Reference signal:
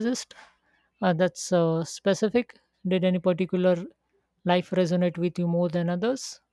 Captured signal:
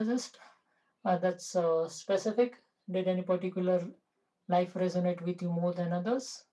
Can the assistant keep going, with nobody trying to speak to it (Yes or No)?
Yes